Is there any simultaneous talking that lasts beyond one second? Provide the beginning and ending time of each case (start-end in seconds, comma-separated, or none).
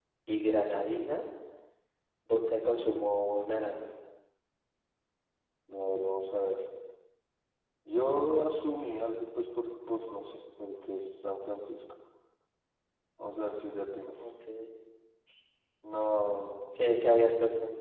none